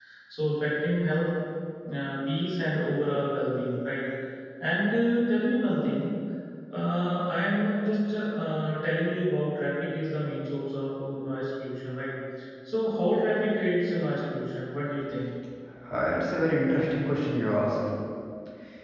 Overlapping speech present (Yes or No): No